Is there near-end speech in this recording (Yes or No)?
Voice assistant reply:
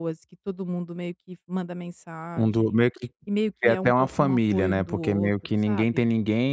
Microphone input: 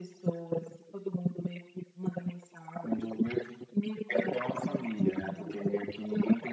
No